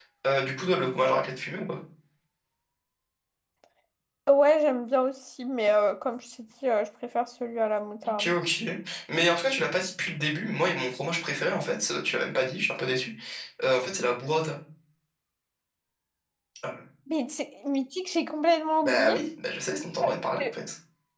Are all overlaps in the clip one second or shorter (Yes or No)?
Yes